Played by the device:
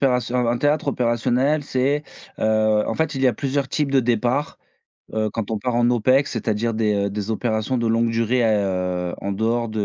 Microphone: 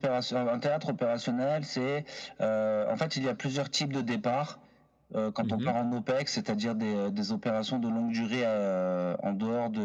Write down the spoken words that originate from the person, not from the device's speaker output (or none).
Mmh